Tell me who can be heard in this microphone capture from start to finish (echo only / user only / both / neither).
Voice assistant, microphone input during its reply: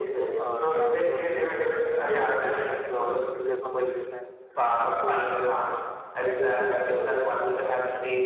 both